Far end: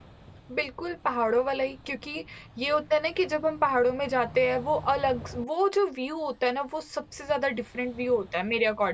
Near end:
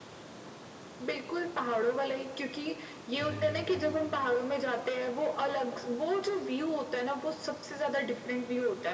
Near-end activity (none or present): present